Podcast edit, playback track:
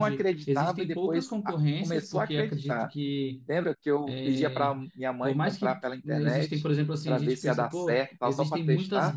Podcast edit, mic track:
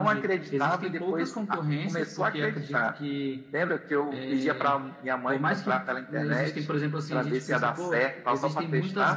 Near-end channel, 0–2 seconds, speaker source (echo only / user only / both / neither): echo only